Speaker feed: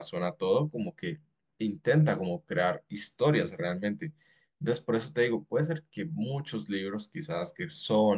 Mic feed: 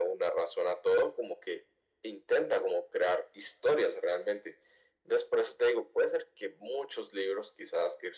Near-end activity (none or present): none